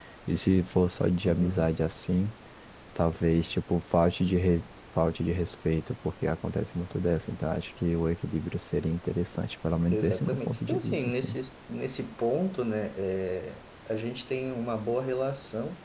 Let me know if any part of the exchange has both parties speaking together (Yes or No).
Yes